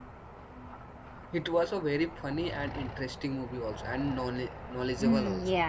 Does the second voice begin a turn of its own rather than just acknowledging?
Yes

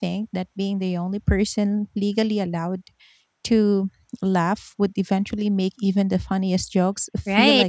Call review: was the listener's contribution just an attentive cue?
No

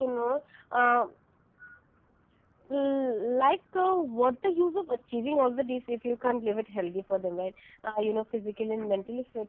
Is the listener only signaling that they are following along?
Yes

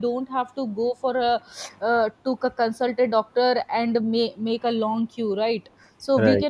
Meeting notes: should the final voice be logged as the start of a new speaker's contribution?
No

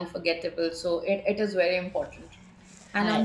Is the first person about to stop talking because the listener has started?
No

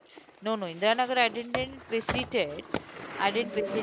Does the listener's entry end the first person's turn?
No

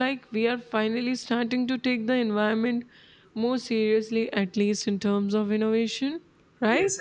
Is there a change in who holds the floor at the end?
Yes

